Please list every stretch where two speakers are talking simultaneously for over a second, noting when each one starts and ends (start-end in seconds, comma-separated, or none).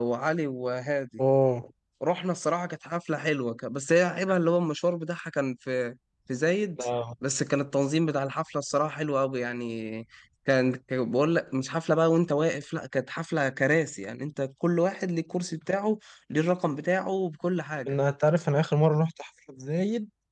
none